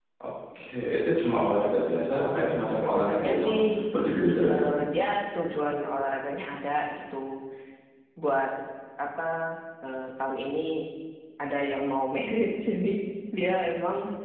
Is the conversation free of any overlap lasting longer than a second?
No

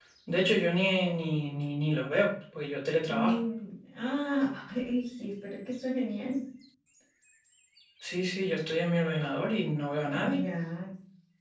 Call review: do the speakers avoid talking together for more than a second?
Yes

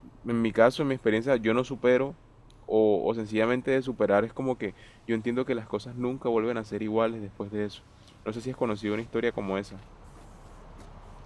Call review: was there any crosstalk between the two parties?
No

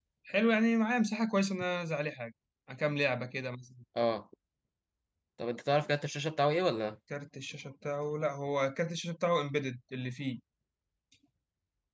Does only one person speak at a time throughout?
Yes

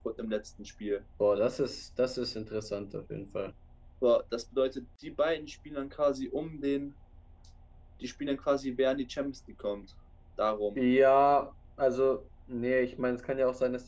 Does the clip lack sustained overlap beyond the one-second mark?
Yes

